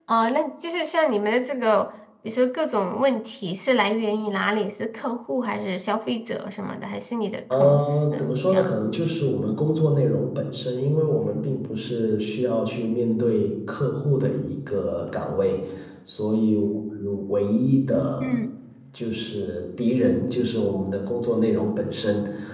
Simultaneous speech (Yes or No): Yes